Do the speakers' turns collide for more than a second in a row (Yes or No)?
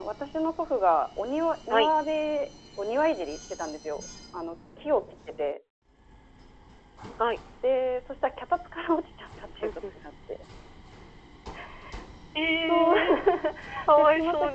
No